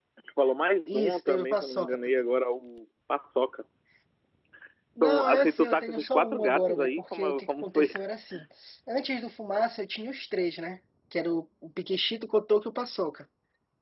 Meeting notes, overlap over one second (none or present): present